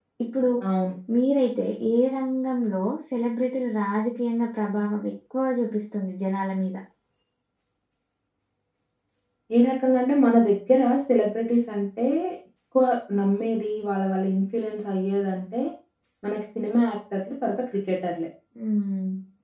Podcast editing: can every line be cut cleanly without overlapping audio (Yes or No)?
Yes